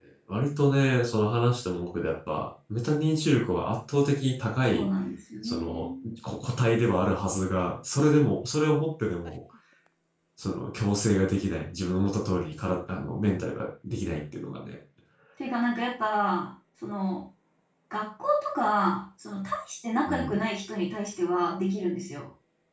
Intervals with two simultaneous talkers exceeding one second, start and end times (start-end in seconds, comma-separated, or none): none